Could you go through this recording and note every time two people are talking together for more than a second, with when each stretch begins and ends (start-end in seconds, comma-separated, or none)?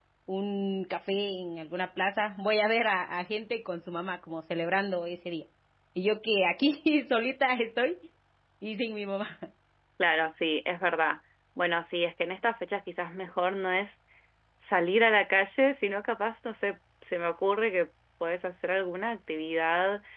none